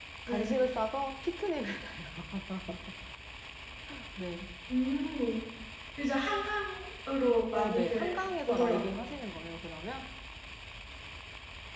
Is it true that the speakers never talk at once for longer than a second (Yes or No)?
No